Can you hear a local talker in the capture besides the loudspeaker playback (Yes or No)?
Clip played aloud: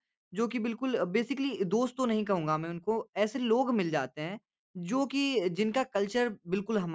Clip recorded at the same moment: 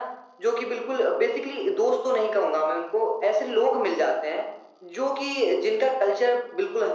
No